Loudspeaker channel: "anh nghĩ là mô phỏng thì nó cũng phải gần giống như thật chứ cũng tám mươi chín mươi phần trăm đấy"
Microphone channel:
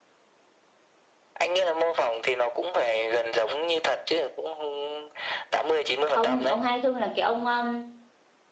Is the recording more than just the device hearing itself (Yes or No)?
Yes